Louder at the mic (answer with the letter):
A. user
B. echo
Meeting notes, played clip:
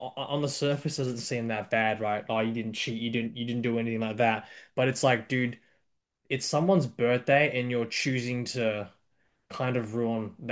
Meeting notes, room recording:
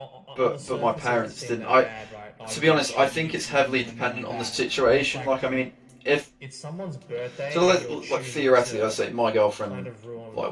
A